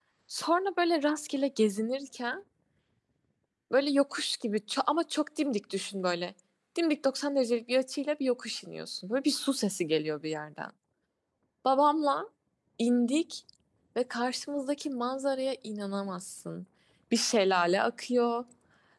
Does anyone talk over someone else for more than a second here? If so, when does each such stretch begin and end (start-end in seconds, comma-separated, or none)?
none